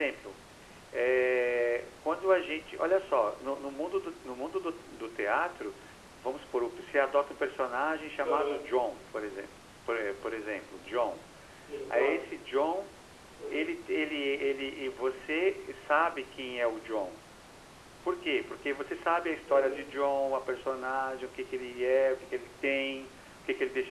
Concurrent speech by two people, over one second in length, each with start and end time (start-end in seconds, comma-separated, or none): none